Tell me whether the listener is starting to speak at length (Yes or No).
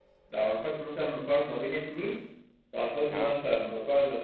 No